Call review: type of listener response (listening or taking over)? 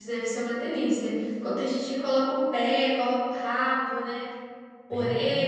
taking over